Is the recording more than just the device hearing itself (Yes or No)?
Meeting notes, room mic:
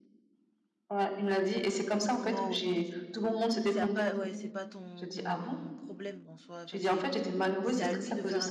Yes